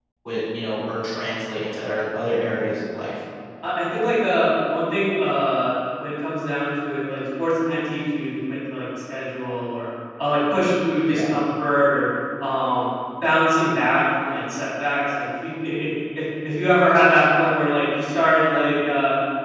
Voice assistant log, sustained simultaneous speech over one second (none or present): none